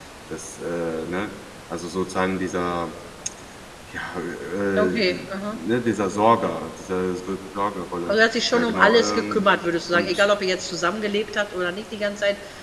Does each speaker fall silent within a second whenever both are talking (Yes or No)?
No